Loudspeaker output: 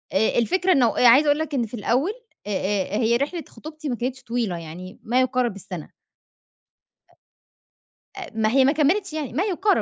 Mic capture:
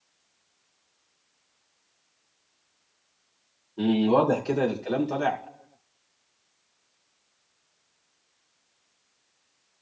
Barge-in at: 3.8 s

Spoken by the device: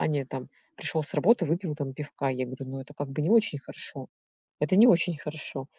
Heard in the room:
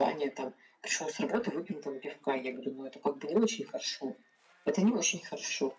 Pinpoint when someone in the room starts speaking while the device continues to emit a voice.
none

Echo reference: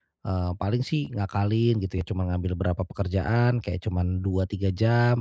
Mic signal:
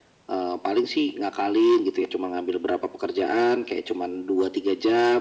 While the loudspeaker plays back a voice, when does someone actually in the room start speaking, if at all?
none

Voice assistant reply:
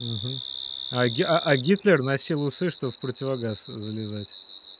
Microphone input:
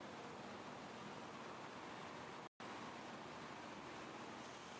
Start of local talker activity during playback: none

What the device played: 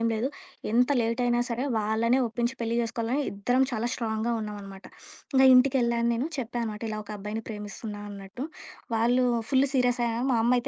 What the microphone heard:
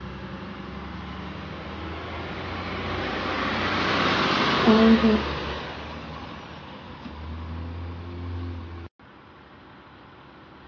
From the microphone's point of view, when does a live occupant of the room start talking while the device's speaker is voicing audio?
4.7 s

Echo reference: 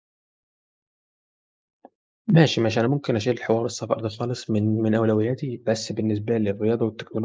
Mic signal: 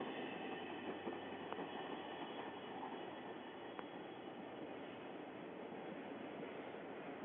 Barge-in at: none

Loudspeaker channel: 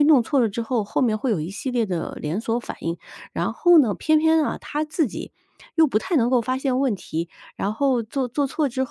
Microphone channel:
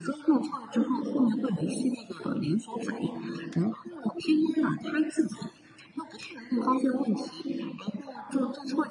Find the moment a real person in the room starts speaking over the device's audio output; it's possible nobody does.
none

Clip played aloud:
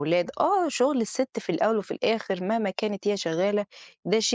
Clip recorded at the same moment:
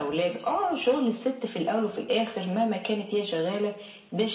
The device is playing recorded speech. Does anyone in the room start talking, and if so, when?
none

